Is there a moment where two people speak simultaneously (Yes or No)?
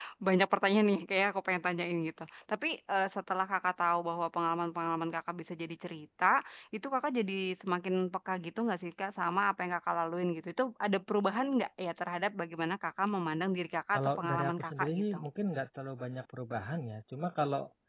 Yes